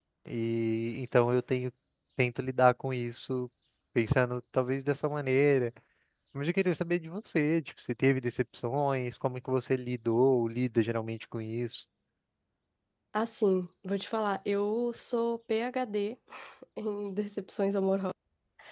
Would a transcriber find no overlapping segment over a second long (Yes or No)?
Yes